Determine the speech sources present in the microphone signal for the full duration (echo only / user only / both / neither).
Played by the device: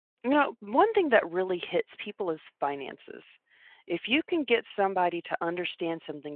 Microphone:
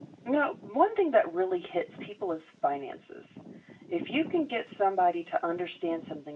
echo only